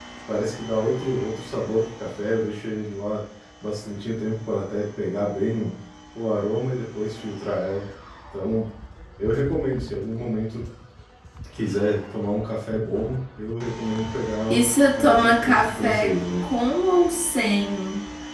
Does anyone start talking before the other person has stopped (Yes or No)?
Yes